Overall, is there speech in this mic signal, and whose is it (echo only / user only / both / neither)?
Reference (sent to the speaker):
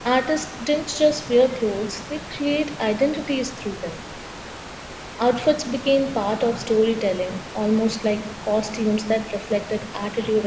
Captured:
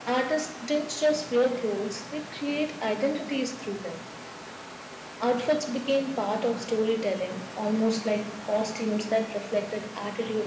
echo only